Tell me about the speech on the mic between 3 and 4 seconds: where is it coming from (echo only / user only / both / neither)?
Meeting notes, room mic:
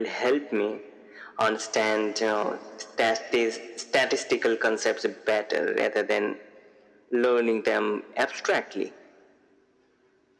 echo only